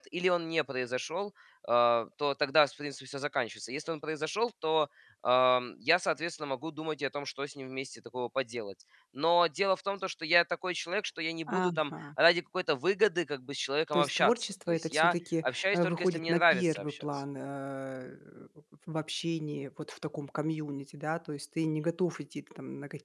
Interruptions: present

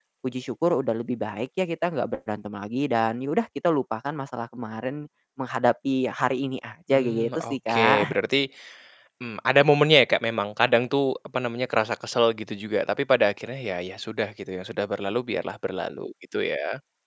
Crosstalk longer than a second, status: present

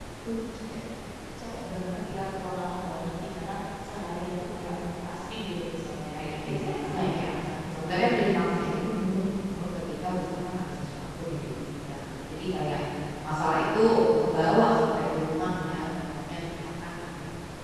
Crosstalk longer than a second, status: present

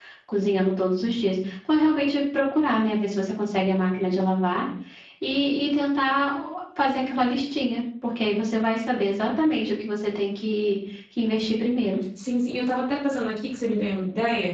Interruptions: none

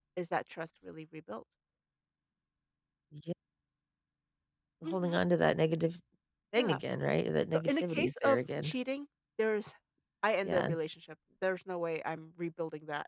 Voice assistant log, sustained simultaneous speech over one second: present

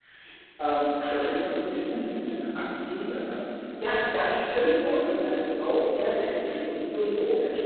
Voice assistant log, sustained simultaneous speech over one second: present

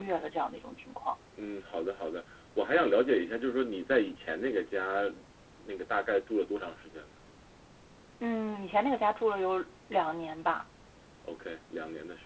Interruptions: none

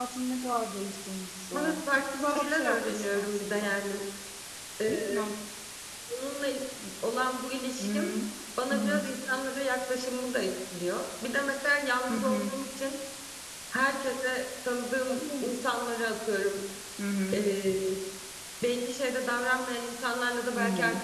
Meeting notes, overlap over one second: present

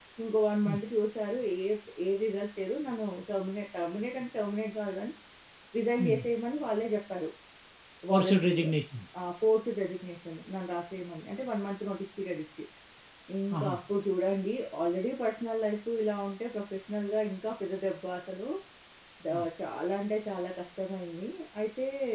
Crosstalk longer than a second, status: none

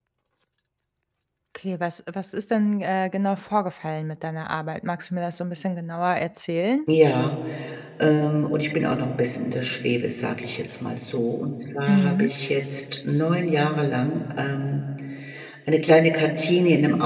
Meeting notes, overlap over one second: none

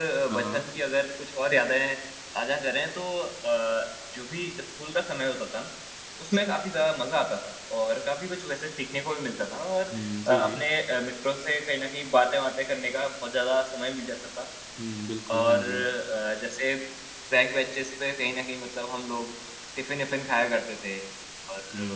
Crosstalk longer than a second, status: none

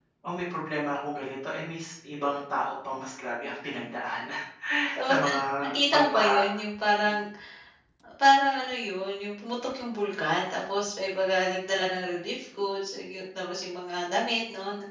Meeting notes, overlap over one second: present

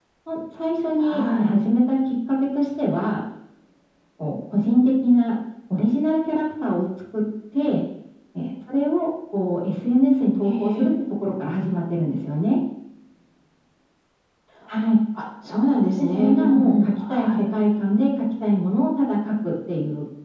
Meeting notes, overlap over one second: present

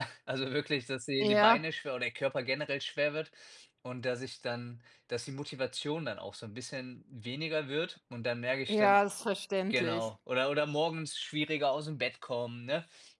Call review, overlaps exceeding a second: none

